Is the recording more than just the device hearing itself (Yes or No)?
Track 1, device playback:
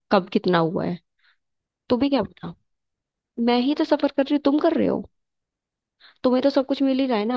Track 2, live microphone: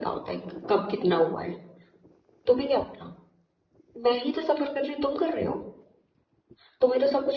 No